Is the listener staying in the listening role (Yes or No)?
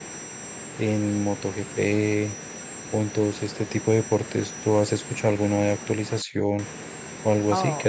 No